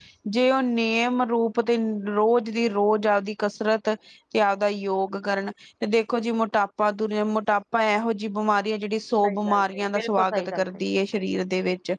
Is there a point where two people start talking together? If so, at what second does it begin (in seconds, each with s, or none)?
9.2 s